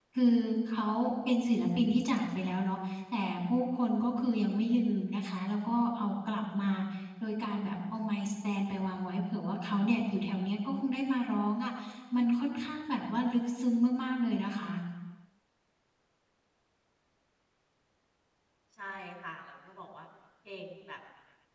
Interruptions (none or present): none